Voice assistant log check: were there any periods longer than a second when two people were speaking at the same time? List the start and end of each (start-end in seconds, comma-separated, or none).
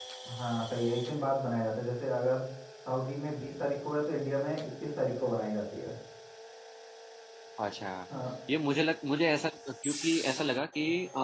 none